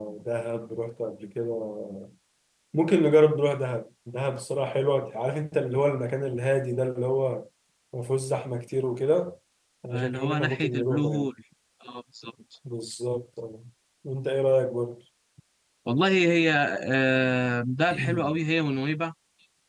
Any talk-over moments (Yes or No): Yes